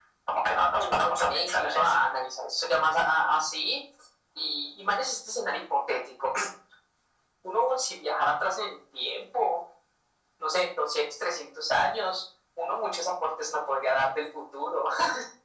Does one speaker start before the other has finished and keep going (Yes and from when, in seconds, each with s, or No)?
Yes, from 0.7 s